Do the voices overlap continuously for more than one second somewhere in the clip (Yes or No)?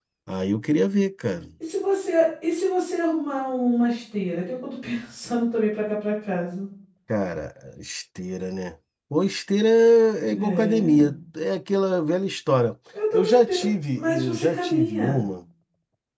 Yes